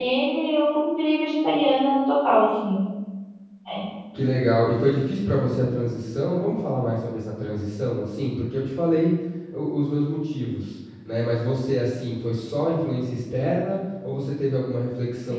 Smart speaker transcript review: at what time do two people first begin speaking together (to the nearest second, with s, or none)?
none